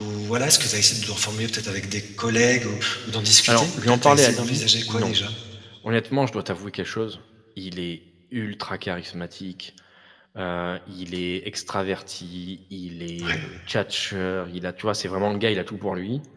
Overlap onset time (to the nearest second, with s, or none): 3 s